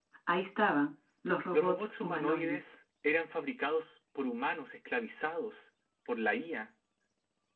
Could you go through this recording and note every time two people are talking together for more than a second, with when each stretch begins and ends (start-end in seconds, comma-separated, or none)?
1.5-2.8